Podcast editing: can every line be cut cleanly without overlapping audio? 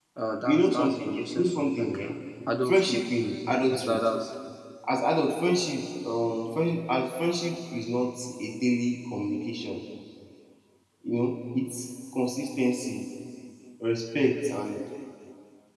No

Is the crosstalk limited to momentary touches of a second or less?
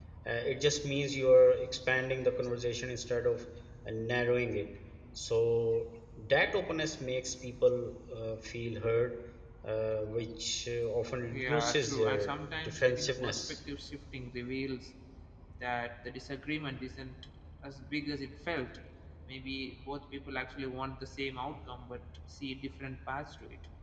No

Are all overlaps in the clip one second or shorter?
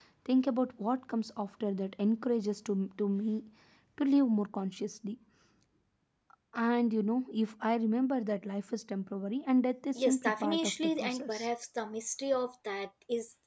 No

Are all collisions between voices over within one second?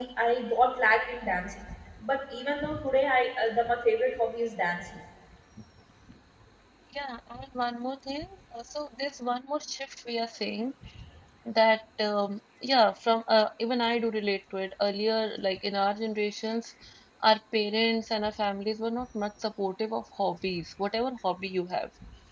Yes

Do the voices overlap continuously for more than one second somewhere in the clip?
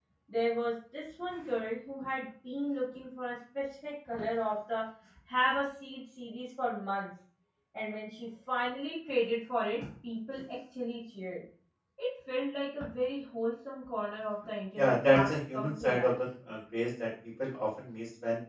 Yes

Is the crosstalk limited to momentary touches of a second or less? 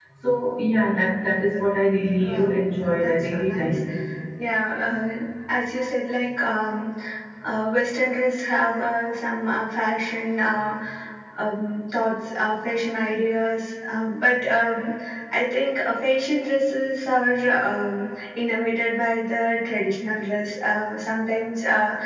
No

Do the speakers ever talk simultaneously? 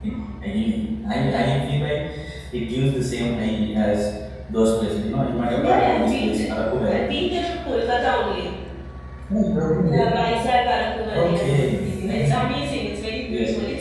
Yes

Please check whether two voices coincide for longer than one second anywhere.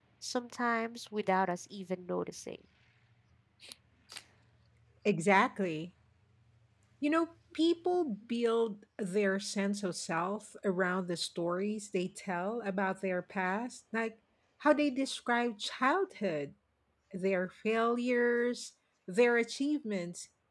No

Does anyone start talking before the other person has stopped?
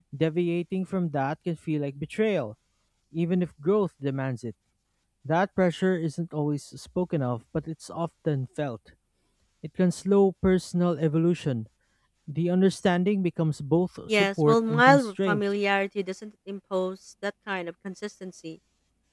Yes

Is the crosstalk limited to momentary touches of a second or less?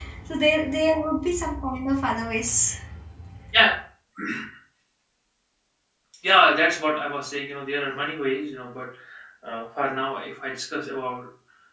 Yes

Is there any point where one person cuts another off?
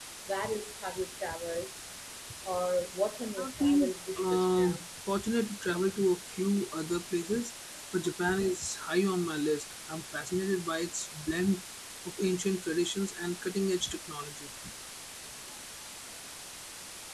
Yes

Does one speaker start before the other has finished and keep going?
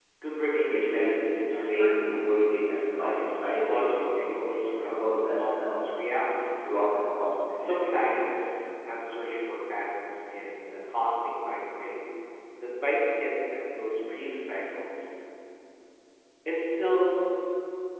Yes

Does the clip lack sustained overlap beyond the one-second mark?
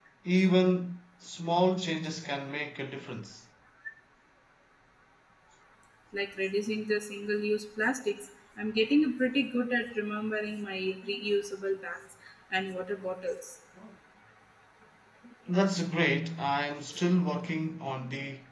Yes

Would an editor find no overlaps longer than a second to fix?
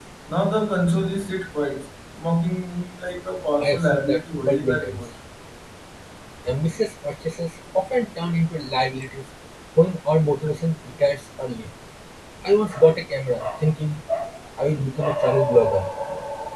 No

